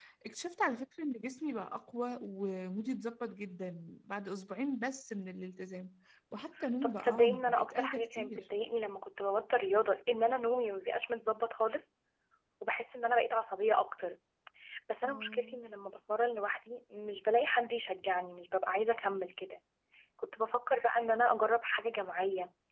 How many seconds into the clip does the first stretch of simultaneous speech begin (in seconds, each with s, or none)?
6.8 s